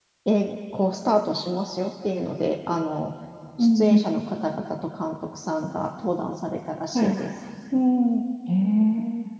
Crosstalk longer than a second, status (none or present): none